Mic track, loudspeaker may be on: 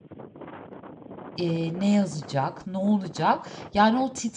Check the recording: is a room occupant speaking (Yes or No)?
Yes